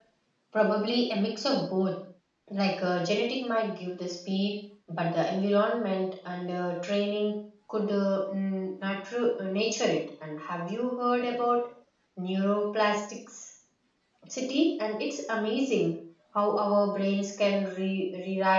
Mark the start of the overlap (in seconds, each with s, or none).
none